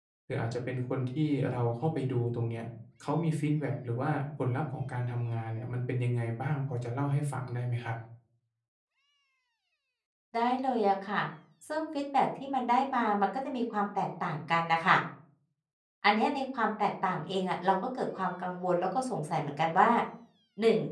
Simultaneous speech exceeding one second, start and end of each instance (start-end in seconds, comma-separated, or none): none